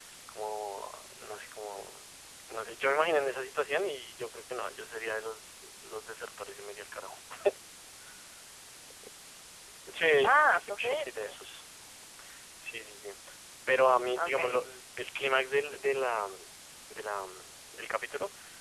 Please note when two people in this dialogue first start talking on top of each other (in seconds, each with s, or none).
10.2 s